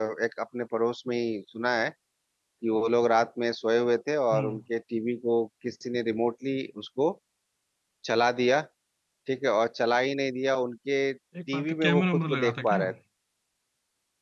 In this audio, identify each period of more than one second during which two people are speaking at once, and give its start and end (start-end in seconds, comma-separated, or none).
11.5-12.8